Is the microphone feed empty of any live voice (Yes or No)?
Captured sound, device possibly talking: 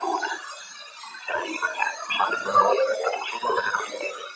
Yes